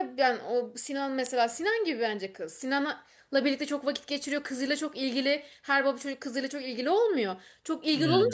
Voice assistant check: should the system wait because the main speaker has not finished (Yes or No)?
Yes